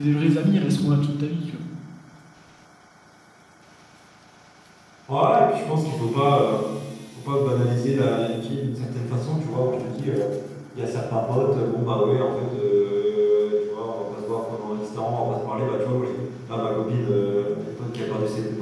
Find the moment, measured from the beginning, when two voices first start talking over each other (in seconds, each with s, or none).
none